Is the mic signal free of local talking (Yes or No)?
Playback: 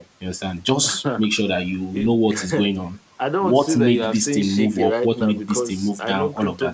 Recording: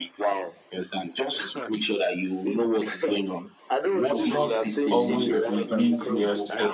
No